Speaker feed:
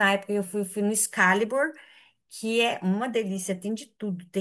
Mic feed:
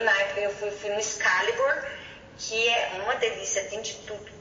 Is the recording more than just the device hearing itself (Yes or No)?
No